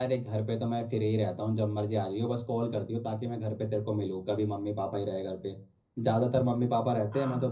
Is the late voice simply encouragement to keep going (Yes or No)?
Yes